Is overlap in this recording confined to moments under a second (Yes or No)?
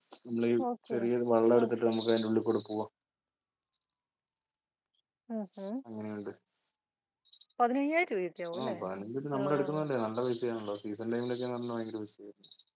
Yes